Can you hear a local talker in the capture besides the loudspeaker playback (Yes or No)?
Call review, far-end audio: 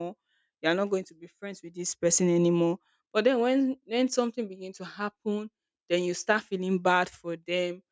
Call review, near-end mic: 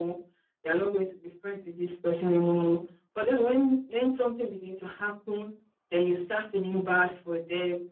No